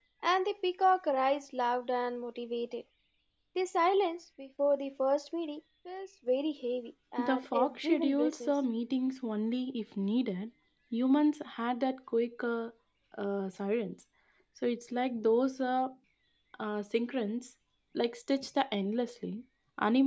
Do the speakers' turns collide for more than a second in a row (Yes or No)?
Yes